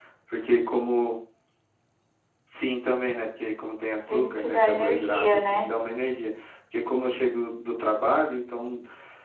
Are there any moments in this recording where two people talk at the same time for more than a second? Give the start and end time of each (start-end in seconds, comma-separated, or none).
4.1-5.7